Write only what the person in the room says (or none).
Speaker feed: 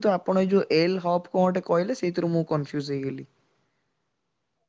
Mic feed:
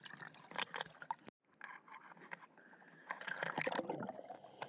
none